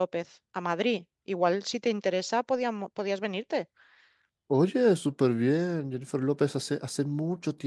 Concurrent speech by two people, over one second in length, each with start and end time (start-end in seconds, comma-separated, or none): none